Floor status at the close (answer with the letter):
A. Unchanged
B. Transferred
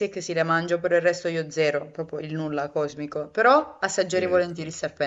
A